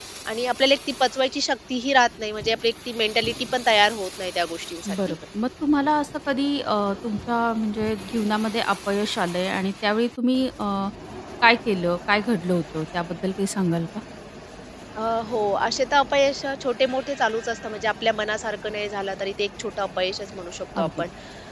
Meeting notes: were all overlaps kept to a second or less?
Yes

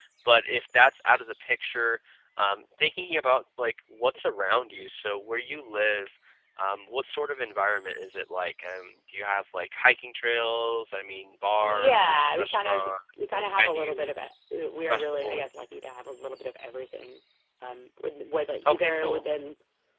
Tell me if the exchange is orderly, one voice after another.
No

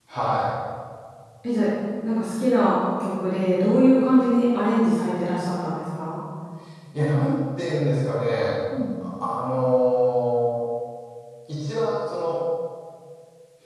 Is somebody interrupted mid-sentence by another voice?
No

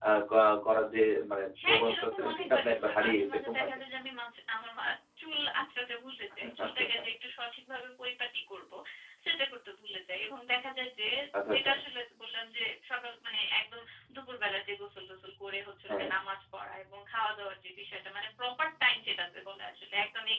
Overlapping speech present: Yes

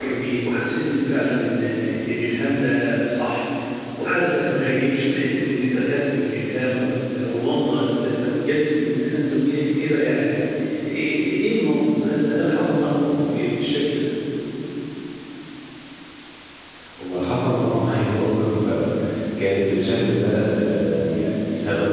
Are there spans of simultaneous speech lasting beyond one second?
No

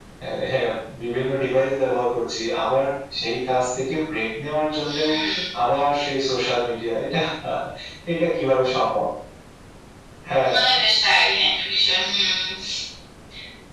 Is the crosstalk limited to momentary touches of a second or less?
Yes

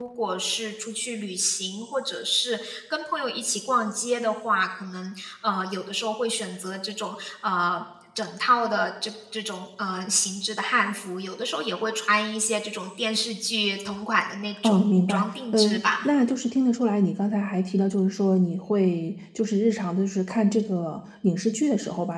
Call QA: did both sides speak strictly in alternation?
No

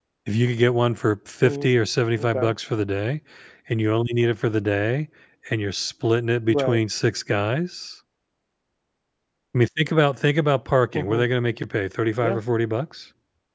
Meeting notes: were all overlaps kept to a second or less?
Yes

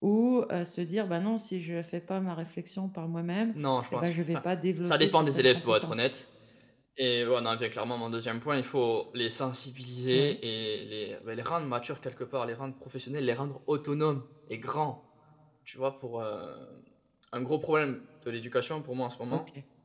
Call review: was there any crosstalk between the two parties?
Yes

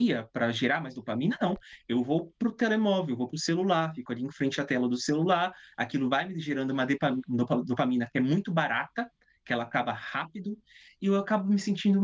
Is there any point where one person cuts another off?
No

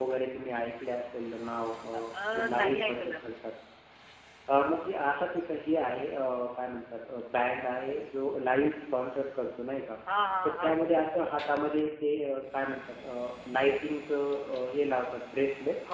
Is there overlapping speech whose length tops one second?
Yes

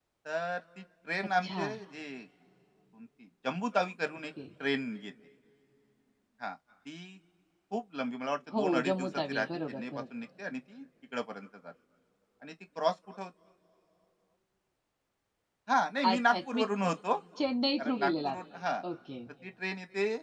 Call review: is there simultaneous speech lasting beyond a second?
Yes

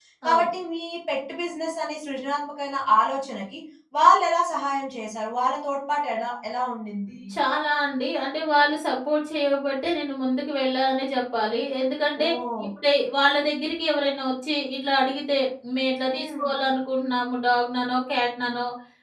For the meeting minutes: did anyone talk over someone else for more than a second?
No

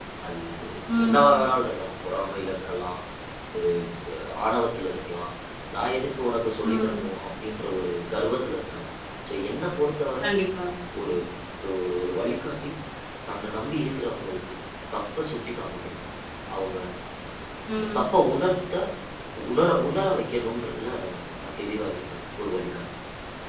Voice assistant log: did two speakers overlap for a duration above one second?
No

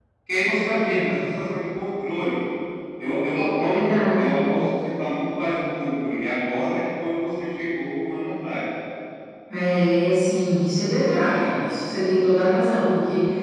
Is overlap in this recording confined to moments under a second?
Yes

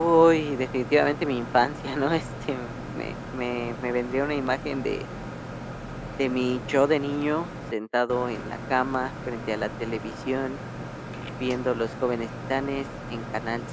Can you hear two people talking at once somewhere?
No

